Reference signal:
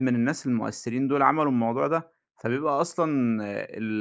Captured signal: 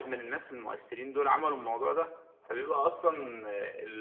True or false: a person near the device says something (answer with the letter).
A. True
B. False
B